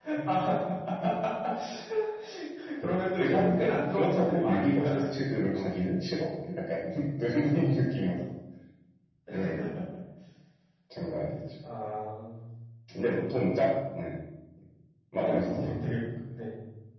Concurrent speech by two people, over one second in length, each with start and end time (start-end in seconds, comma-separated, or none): 3.2-4.9